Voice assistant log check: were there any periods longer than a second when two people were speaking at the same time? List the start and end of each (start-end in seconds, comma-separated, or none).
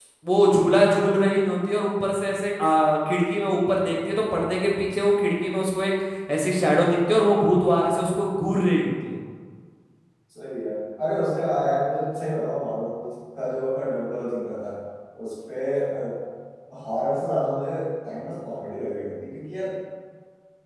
none